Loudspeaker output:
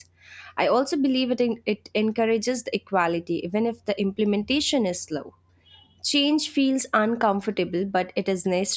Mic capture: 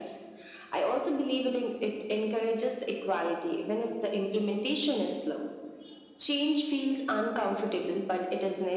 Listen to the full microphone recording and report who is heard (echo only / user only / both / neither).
echo only